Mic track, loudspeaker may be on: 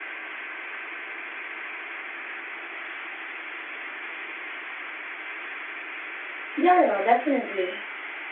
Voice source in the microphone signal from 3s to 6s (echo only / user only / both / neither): neither